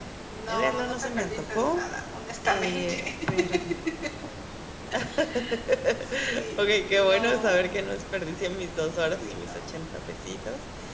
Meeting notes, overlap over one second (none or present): present